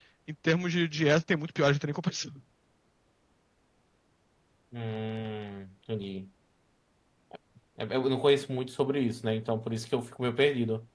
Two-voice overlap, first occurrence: none

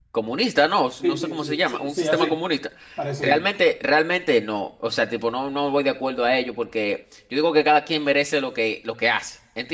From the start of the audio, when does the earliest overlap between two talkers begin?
1 s

